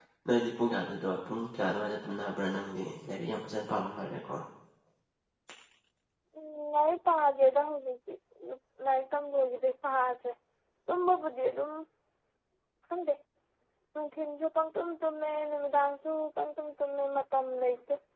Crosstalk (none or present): none